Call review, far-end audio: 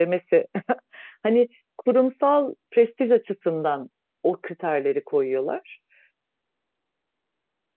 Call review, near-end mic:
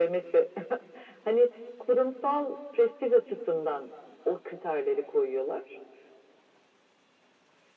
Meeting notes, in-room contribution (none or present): none